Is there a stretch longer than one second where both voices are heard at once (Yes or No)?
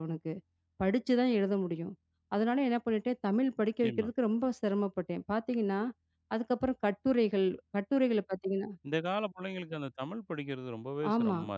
No